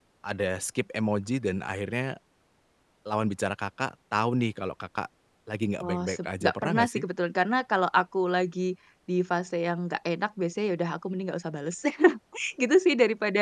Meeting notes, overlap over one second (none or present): present